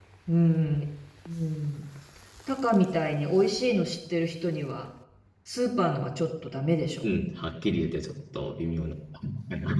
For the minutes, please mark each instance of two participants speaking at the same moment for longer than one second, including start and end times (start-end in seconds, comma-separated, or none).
none